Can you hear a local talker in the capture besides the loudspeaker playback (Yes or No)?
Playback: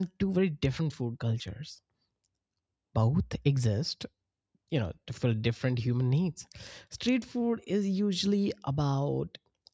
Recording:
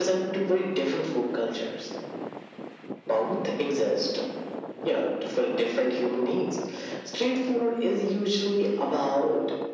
No